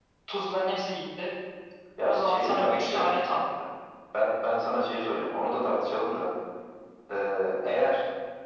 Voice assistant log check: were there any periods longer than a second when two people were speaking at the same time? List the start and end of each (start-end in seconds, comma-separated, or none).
2.0-3.3